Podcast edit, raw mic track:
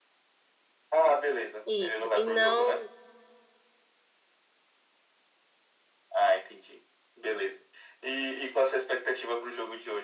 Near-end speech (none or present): present